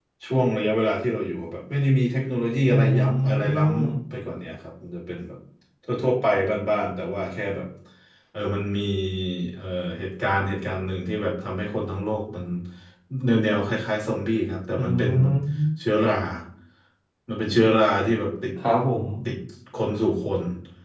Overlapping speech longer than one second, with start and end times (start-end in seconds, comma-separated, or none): 2.7-4.0